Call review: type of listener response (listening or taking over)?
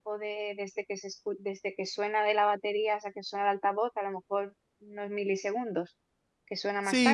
taking over